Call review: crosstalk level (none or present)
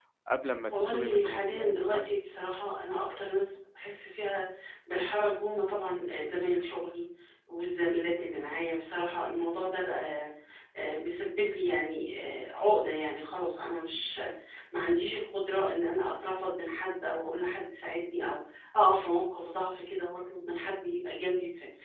present